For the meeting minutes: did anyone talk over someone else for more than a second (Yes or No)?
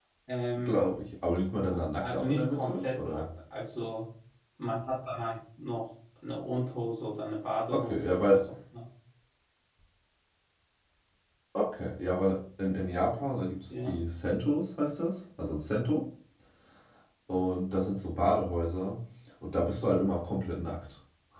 Yes